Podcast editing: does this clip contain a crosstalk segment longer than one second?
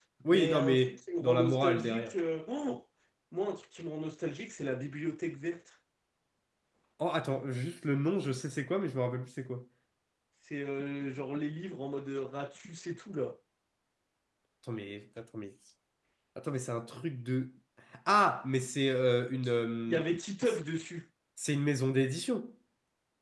Yes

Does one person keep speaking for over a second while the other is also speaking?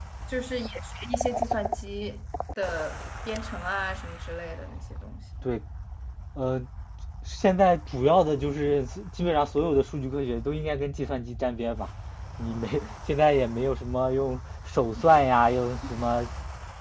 No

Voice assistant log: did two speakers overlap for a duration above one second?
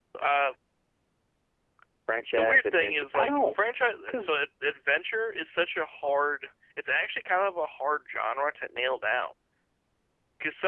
Yes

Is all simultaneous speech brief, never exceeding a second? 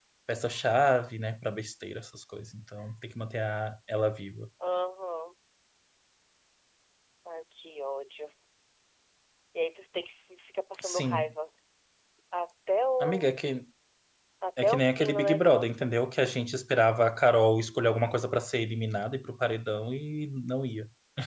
No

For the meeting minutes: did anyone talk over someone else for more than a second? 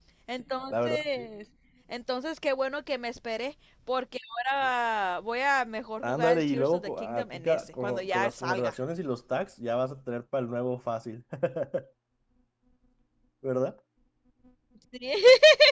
Yes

